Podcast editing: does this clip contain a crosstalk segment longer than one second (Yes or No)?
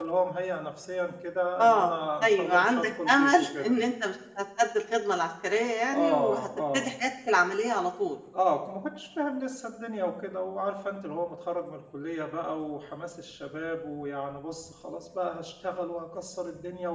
Yes